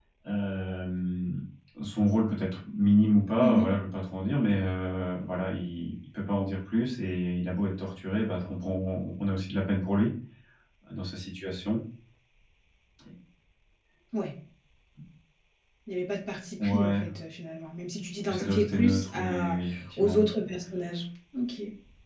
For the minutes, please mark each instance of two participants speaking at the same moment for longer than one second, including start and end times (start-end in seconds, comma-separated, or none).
18.3-19.6